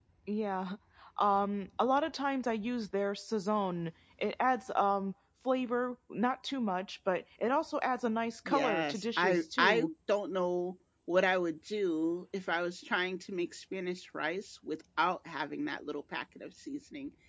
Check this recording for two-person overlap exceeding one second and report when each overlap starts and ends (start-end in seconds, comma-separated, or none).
8.5-9.9